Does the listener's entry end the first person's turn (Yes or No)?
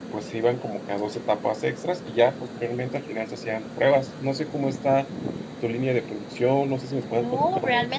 Yes